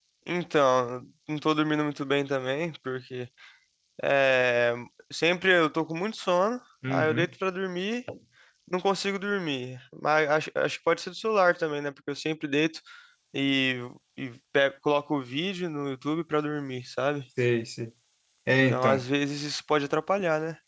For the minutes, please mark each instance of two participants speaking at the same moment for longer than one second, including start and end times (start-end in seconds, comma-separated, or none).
none